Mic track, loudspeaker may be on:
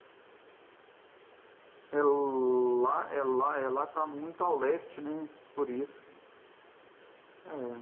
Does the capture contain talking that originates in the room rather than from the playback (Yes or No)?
Yes